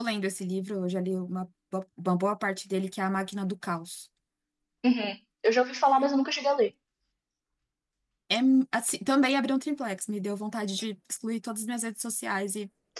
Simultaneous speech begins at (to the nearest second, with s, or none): none